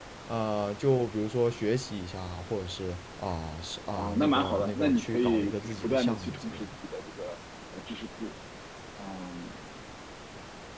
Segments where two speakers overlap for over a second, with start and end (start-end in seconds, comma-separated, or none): 3.9-6.7